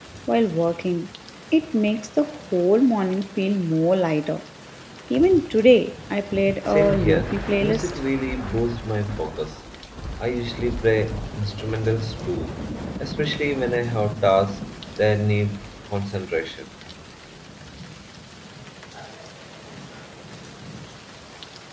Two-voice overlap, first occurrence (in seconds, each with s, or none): 6.7 s